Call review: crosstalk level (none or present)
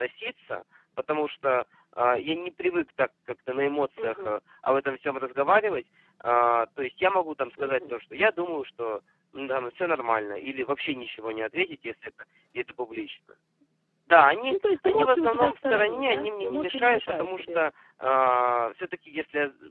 present